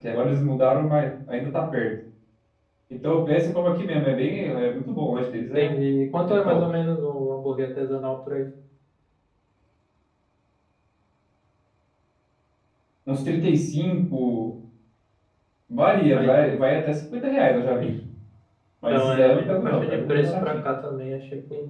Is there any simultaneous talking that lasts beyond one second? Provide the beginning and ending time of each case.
18.9-20.6

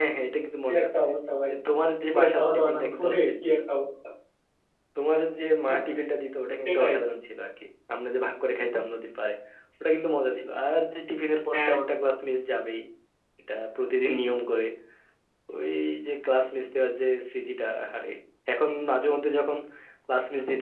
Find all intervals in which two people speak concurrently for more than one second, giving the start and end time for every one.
2.1-3.6

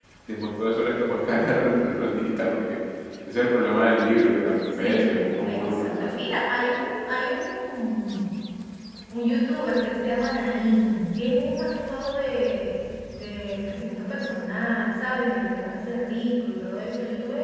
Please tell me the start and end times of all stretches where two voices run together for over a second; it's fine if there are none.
4.8-6.1

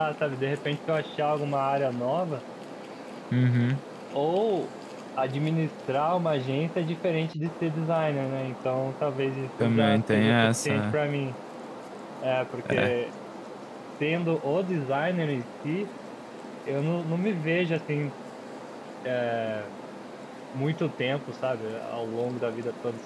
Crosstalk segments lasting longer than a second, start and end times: 9.6-10.9

